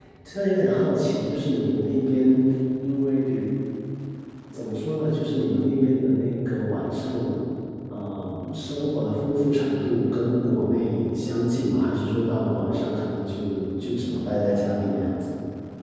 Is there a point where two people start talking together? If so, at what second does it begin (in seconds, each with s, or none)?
none